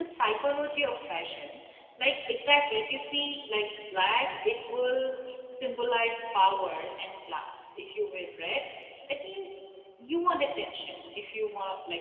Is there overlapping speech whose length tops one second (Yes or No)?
No